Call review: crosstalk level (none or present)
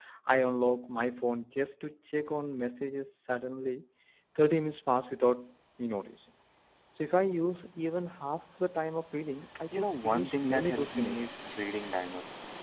present